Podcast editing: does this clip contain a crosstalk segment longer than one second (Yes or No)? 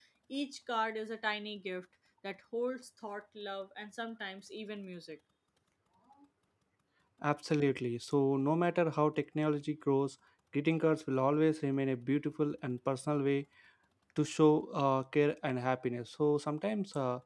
No